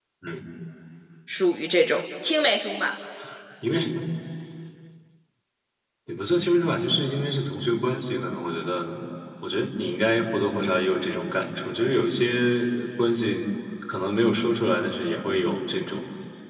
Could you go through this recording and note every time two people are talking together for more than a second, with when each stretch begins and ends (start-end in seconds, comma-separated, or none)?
none